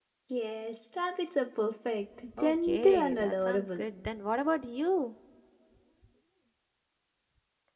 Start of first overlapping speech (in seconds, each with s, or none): 2.3 s